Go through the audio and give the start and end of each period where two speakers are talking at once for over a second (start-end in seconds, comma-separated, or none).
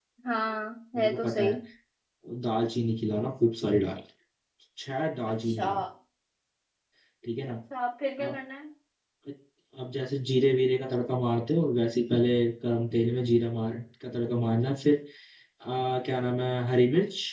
none